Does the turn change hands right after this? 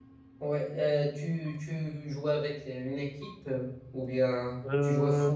No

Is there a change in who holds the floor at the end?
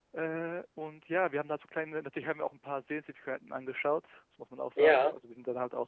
No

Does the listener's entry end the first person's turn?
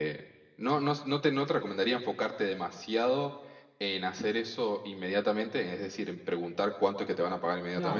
Yes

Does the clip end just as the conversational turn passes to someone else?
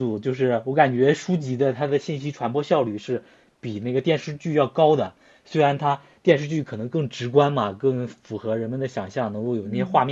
No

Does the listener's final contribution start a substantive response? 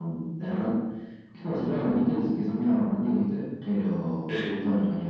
No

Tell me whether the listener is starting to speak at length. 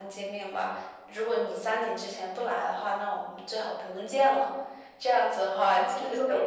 Yes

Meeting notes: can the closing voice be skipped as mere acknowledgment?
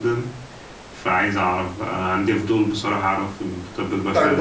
No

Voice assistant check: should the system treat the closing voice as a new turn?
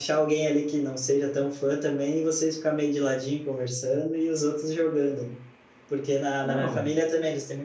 No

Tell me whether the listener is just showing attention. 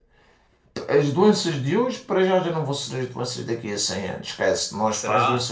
Yes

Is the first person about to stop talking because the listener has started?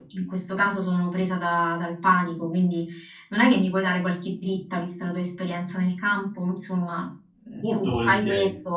No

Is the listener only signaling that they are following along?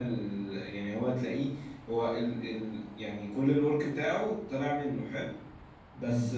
Yes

